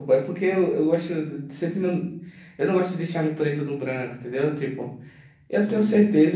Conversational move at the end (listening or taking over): listening